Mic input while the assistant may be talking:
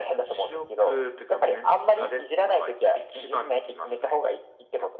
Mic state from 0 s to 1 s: echo only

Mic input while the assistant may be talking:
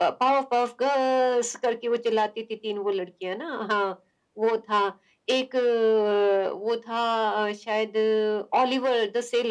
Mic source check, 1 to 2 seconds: echo only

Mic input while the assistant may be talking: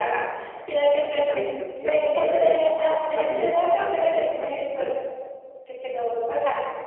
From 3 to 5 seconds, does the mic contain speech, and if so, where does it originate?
both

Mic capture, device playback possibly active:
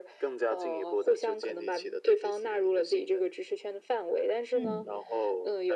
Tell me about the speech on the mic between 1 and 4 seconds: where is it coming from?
echo only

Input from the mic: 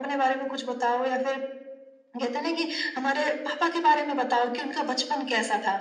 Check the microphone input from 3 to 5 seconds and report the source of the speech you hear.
echo only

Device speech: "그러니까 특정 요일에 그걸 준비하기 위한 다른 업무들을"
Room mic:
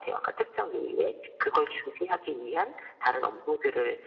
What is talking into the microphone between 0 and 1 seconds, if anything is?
echo only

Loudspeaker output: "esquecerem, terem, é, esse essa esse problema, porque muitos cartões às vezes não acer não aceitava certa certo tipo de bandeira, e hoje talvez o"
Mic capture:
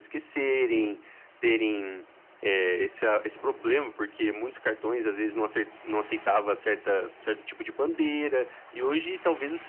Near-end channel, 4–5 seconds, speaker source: echo only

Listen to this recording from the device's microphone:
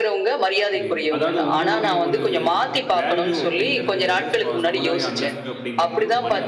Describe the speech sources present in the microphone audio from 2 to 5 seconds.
both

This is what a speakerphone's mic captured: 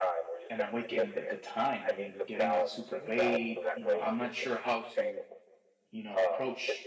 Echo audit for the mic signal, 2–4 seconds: both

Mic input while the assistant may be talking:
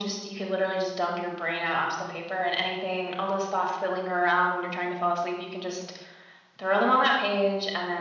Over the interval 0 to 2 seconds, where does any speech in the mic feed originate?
echo only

